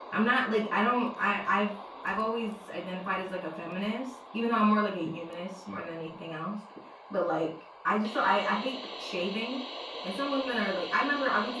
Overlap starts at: none

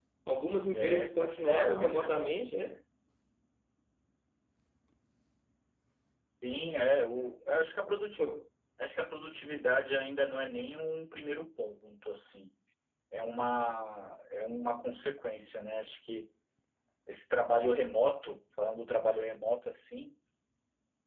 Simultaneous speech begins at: 0.7 s

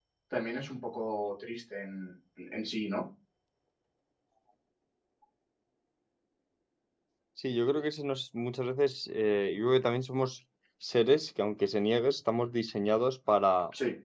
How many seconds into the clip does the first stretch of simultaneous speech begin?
none

